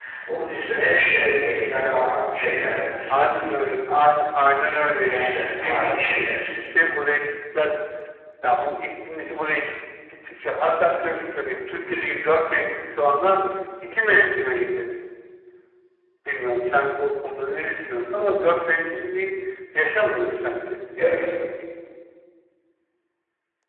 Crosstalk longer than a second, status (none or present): present